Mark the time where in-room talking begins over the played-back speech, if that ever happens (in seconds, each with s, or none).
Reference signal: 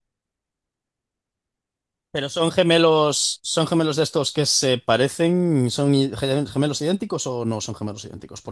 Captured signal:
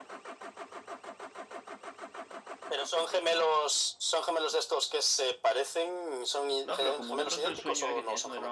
6.6 s